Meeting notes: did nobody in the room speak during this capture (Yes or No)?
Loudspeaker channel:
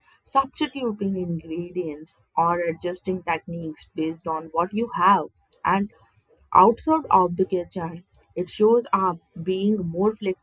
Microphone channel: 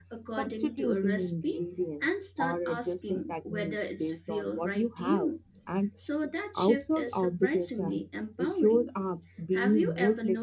No